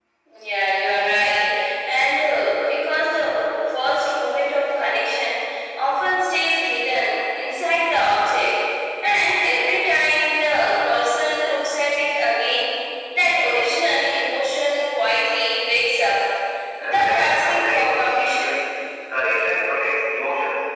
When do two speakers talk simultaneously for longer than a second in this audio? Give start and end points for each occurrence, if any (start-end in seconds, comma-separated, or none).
16.8-18.5